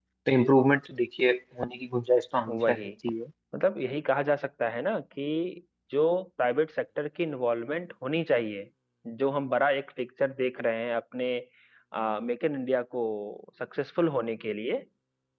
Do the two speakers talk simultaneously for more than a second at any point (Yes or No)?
No